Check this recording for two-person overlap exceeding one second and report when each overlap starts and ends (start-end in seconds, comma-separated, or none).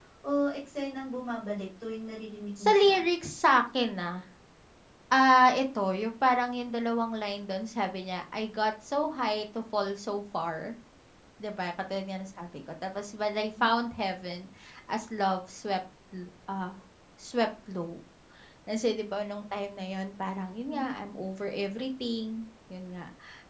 none